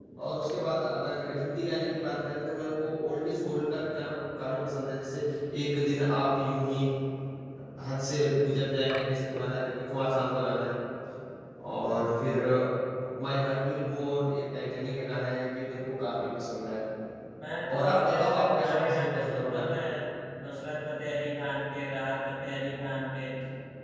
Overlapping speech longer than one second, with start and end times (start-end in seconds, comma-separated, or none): 17.8-19.8